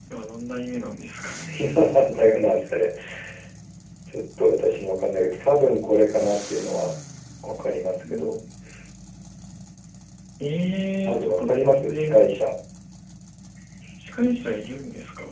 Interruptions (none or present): present